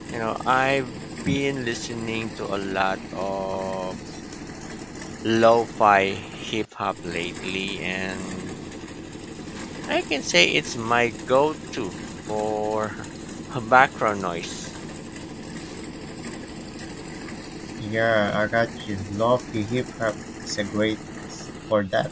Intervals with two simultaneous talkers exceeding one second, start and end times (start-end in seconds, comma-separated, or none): none